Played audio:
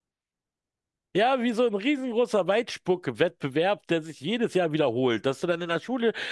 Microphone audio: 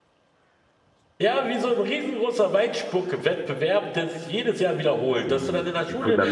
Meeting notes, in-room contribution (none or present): present